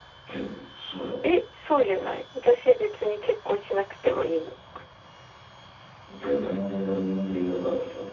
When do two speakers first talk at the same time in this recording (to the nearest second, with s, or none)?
none